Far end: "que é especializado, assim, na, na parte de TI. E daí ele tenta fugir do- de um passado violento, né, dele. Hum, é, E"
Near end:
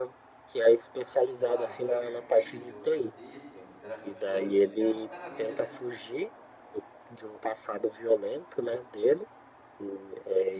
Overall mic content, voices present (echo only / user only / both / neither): both